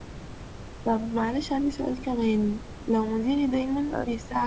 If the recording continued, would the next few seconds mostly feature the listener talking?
No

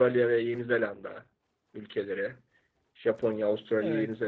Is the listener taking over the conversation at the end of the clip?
No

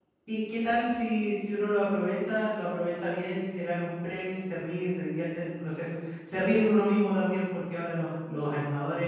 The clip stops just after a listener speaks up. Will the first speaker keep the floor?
Yes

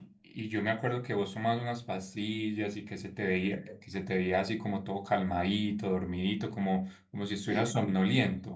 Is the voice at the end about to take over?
No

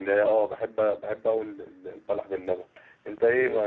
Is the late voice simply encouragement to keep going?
Yes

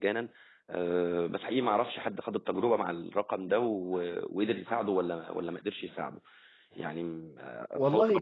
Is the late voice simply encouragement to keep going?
Yes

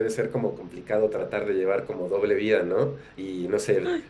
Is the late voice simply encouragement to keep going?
Yes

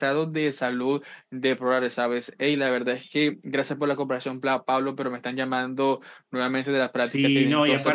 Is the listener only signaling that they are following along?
No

